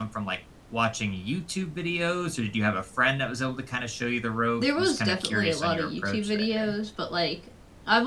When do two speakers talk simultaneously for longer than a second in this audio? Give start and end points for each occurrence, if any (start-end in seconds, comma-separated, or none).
4.6-6.7